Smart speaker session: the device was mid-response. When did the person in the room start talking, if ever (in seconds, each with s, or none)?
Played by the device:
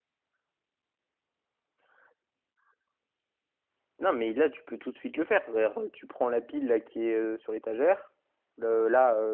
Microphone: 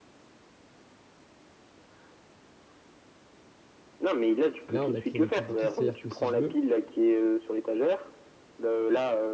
4.7 s